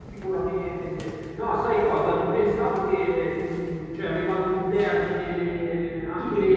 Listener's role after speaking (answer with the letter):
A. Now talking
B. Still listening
B